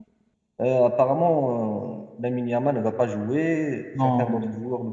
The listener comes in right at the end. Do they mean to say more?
No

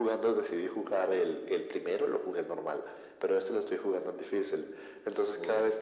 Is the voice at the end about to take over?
No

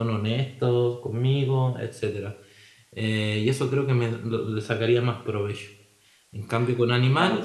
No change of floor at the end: Yes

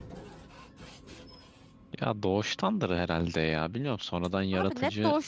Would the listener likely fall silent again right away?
No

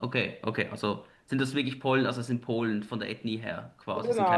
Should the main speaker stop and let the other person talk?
Yes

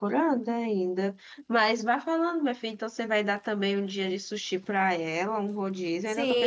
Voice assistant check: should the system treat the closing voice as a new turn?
Yes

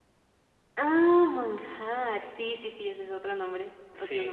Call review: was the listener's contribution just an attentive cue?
No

